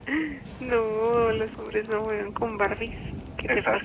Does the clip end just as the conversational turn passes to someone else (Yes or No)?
Yes